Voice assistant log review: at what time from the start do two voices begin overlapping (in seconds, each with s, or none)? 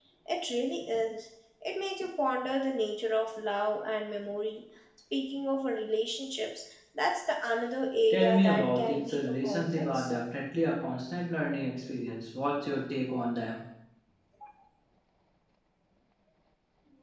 8.1 s